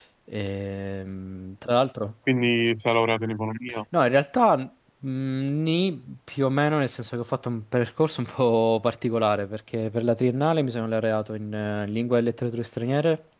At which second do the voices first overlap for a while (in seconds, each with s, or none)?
none